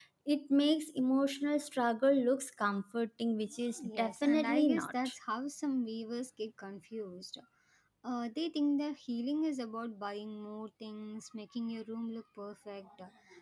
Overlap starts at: 3.8 s

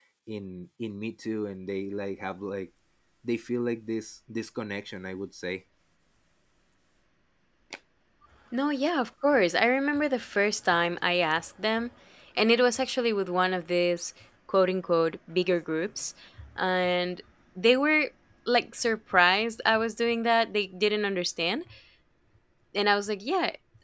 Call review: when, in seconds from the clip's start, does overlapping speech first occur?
none

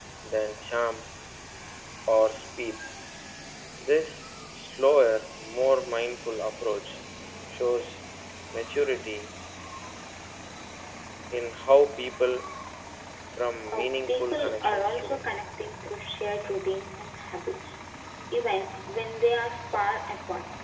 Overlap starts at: 13.7 s

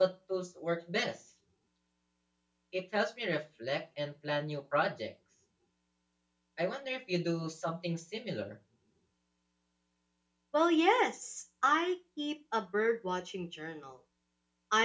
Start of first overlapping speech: none

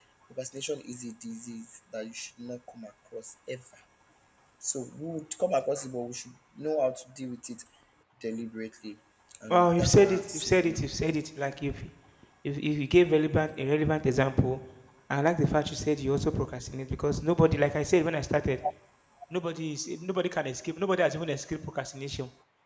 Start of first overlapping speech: 9.5 s

